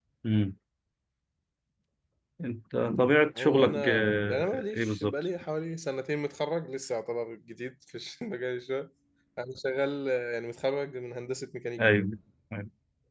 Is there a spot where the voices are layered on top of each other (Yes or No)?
Yes